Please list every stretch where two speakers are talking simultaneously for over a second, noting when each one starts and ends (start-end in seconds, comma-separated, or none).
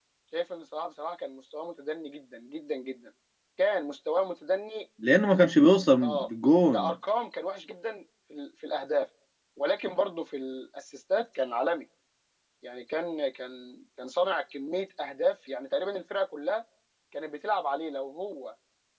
none